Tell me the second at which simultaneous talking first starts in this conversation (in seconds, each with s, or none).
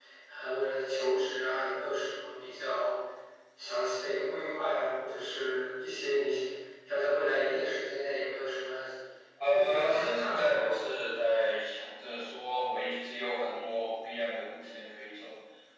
9.5 s